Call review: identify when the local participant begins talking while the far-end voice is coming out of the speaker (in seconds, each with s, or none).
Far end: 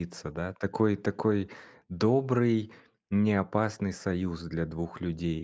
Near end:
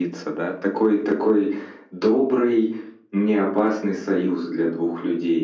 none